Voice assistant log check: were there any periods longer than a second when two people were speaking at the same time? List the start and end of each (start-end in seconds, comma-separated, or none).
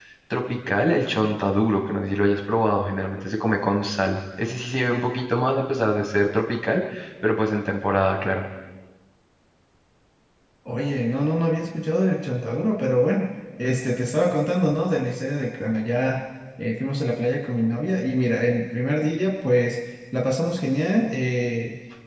none